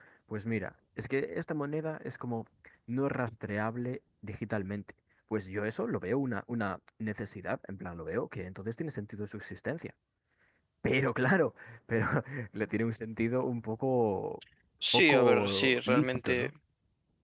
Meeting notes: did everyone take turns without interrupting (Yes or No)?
No